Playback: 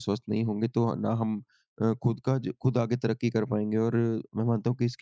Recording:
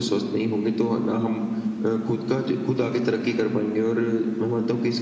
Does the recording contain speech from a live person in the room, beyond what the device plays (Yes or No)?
No